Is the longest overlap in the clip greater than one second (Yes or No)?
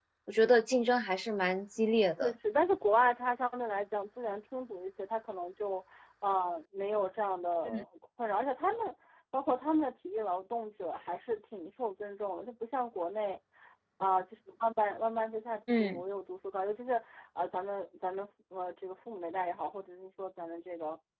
No